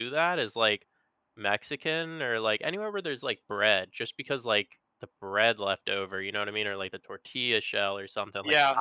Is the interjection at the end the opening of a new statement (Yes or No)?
Yes